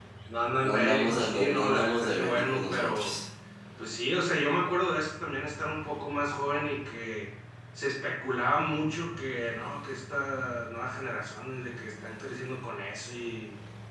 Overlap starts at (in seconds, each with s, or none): 0.6 s